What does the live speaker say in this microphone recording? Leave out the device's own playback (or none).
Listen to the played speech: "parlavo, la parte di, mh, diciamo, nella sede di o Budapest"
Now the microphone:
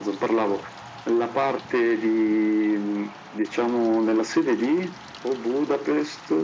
none